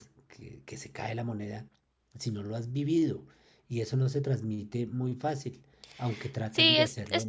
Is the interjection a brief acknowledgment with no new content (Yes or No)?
No